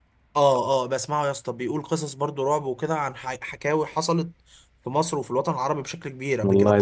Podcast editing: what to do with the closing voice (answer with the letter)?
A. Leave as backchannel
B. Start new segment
A